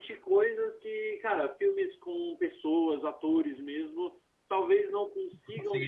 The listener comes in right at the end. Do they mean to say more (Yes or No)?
No